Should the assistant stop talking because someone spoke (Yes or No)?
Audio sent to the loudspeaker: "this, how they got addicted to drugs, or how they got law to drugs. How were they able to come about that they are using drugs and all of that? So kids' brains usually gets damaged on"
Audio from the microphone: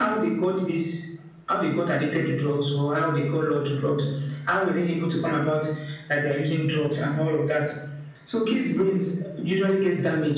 No